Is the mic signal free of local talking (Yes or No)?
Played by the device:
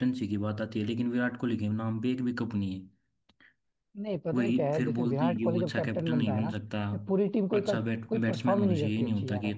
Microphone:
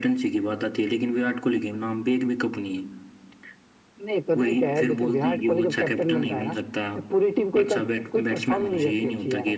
Yes